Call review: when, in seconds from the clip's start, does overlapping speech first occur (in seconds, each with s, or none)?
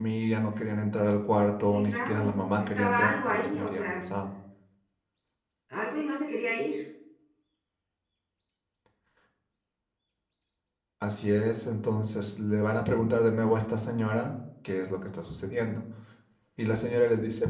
1.7 s